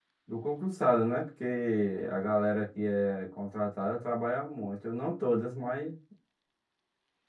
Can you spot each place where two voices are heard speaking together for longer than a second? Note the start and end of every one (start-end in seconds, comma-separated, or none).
none